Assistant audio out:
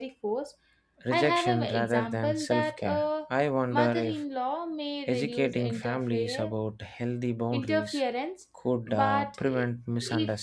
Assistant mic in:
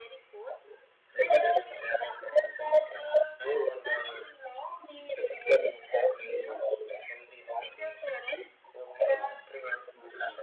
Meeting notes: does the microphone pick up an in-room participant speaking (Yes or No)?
No